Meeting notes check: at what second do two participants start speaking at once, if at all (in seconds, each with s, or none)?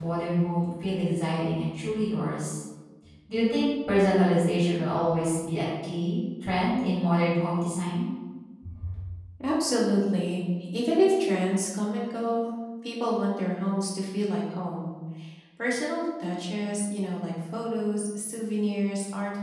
none